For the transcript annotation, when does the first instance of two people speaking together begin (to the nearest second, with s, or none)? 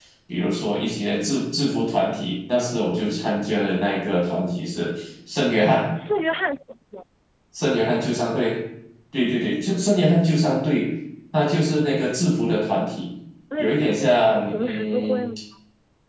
14 s